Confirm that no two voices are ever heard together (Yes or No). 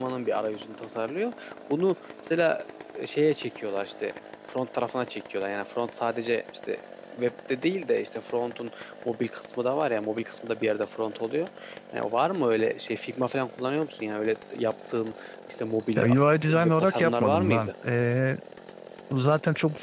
No